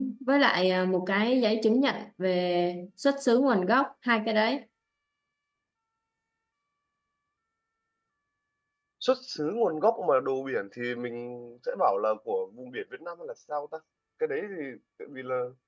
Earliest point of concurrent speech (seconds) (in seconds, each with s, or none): none